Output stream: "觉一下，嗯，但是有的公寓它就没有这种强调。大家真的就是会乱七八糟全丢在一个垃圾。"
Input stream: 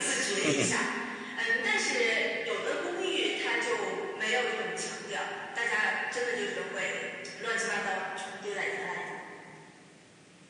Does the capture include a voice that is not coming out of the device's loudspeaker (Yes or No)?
Yes